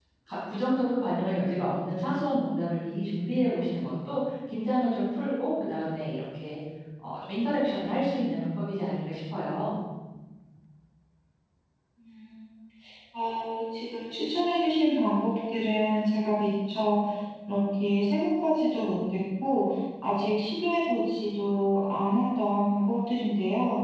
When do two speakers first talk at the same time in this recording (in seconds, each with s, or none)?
none